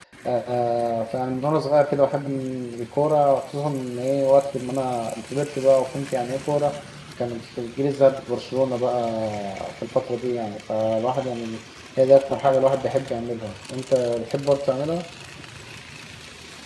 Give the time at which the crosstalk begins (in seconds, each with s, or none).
none